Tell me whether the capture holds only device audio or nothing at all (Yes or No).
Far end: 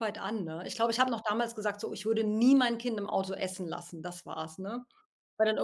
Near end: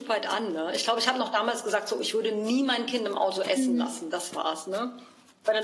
No